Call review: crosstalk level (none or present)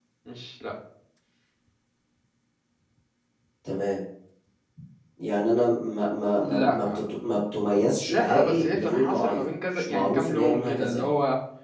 present